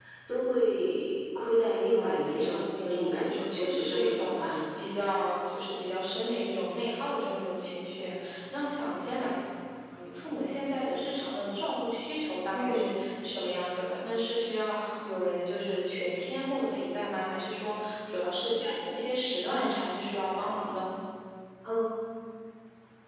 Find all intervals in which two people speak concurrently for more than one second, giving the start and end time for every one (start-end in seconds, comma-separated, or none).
1.6-4.4